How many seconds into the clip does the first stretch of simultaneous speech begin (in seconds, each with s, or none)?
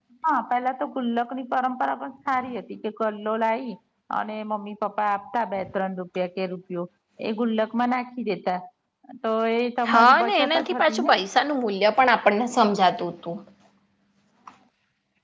9.9 s